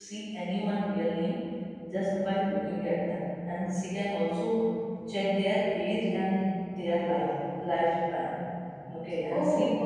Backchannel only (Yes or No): Yes